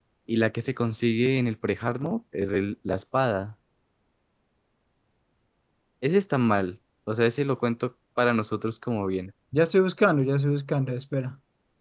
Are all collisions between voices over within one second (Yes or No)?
Yes